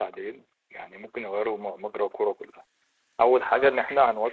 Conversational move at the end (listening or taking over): listening